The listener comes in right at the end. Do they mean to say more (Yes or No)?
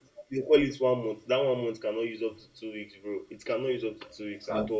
Yes